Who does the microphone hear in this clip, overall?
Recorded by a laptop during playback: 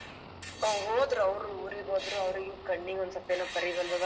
echo only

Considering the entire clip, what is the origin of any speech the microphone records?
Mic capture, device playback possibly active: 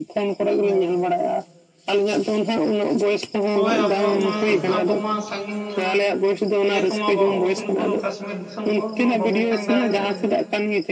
both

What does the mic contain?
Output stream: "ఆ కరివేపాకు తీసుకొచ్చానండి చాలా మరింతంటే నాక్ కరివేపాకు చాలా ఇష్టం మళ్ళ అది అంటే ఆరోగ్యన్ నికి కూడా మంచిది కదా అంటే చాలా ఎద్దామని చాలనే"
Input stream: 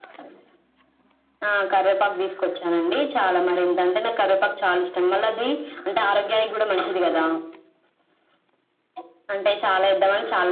echo only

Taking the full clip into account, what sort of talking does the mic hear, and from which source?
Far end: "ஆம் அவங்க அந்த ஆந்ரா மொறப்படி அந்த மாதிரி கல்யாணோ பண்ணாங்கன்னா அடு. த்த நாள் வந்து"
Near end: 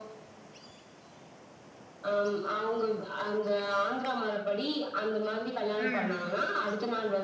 both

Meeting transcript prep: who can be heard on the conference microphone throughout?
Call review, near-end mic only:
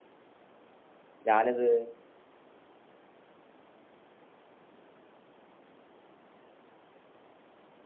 user only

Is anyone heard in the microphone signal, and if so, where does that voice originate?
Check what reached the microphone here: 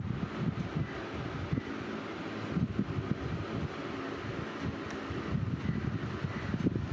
neither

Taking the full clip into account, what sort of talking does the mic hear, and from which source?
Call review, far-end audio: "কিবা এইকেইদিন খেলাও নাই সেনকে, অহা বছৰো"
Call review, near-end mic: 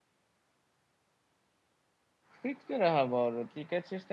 user only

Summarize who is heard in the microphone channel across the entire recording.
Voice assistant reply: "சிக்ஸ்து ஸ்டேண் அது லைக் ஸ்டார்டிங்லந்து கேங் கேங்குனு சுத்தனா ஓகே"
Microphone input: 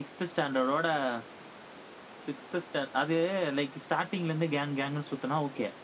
echo only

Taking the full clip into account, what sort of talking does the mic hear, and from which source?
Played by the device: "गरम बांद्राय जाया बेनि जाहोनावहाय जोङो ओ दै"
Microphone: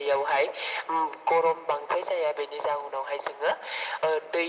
echo only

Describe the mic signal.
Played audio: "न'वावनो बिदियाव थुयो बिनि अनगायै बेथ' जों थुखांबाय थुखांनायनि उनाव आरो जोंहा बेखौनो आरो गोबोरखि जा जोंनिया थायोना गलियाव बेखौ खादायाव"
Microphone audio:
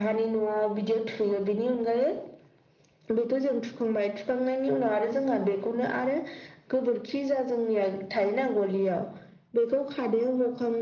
echo only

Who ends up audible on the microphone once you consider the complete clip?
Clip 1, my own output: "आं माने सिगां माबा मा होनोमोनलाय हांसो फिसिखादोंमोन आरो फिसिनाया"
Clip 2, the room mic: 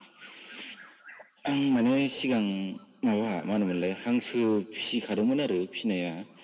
echo only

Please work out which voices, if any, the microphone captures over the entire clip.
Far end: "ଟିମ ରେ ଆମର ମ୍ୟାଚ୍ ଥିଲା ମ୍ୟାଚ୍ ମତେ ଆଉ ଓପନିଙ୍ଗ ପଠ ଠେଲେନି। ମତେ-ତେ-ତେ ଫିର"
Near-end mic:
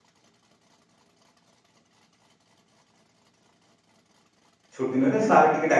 user only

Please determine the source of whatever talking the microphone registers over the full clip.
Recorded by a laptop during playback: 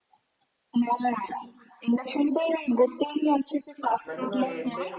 both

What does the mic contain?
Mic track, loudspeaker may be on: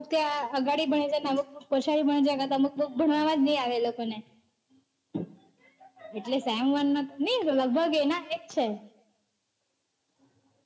echo only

